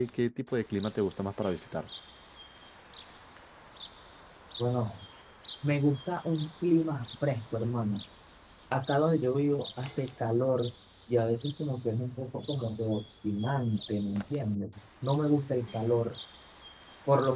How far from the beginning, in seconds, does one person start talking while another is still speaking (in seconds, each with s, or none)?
none